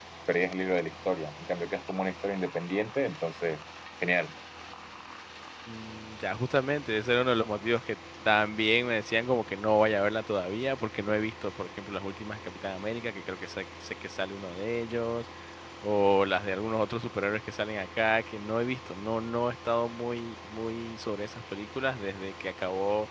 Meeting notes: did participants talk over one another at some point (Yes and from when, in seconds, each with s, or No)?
No